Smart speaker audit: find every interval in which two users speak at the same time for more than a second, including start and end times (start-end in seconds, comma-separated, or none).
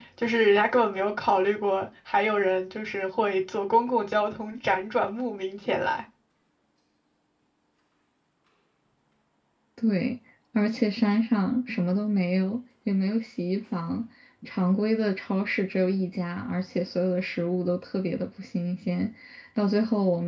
none